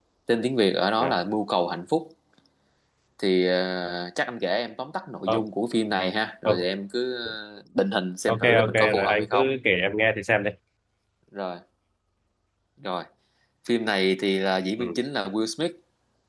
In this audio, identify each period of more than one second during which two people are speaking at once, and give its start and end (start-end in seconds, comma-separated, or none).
8.3-9.5